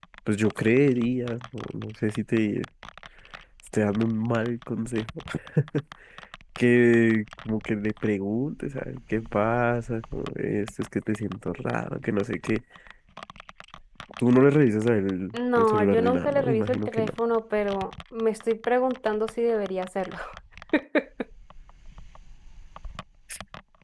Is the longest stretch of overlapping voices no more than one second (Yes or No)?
No